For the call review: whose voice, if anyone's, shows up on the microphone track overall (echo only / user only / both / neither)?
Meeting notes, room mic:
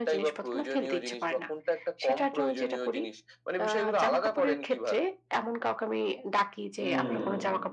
both